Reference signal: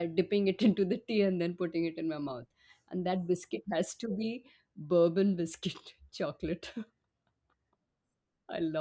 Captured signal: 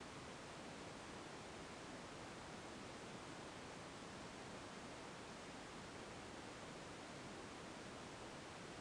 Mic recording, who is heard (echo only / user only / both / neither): neither